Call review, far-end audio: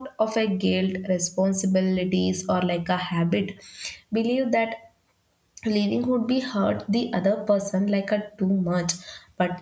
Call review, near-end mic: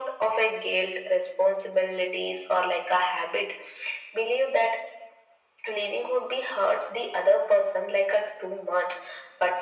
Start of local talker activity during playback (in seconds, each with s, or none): none